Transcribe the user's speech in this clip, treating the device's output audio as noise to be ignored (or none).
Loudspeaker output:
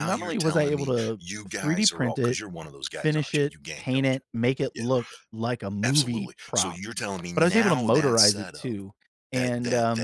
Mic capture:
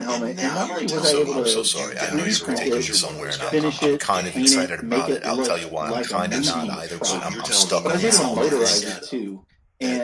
So I'm so sorry. I know you're g taking me somewhere, and I'm I'm I'm kind of excited about it. I'll tell you why I'm kinda not either, but I'm I'm stuck on this helmet thing.